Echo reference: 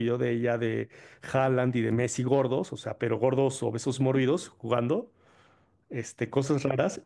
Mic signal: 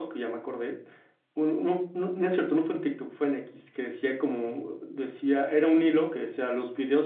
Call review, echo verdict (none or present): none